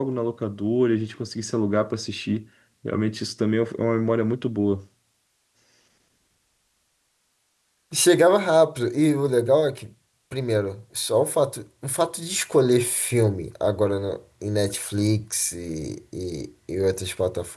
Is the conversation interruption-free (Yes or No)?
Yes